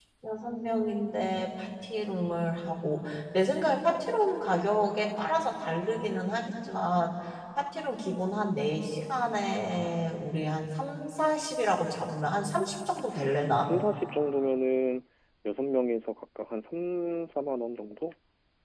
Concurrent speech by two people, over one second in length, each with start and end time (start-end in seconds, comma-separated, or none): none